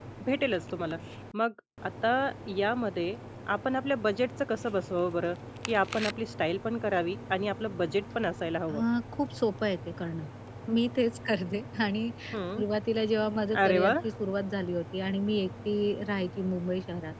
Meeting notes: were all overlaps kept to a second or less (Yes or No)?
Yes